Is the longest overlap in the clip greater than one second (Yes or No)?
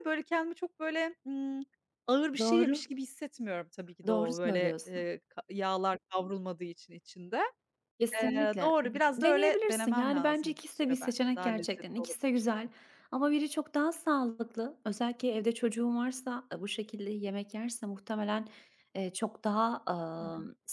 Yes